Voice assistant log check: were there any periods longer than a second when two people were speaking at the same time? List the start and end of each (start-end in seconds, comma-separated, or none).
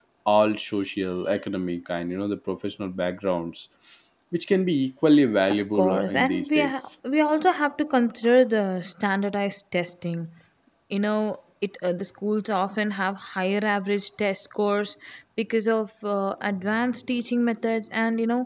5.5-6.9